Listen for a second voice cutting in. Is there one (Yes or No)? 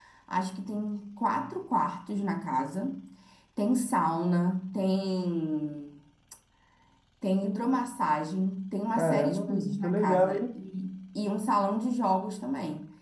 Yes